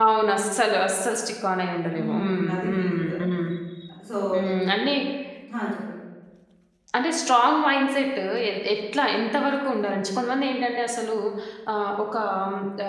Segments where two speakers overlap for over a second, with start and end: 1.9-3.2

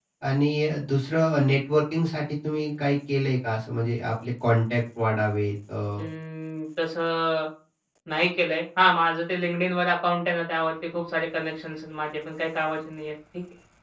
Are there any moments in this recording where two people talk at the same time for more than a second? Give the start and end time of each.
none

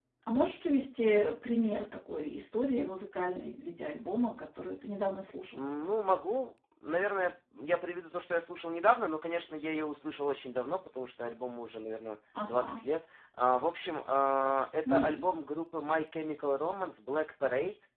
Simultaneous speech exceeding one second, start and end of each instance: none

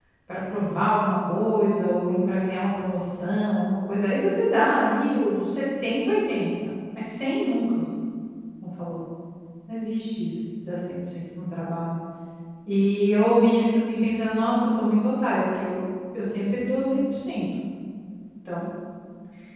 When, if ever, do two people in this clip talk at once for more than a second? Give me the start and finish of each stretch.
none

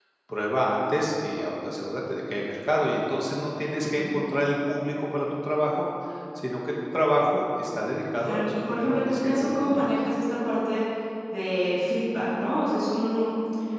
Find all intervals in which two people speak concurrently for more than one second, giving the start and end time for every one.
8.2-9.9

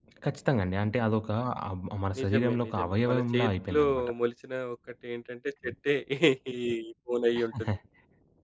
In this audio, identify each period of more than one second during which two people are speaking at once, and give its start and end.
2.2-3.8

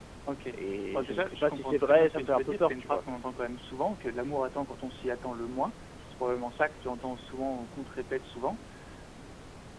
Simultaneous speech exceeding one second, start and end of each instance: 0.9-3.0

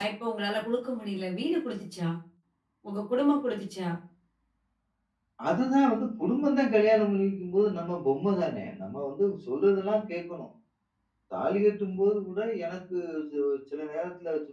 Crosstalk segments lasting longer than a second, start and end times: none

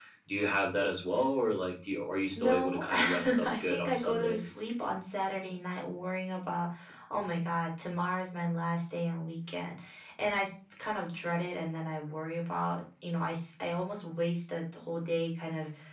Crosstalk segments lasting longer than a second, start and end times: 2.4-4.4

